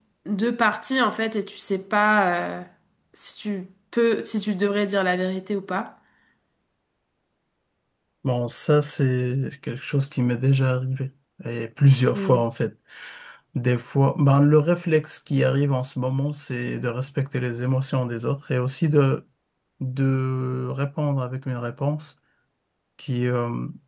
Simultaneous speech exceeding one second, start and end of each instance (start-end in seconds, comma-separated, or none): none